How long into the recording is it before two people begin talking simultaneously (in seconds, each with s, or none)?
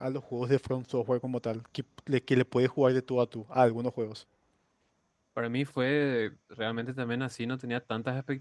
none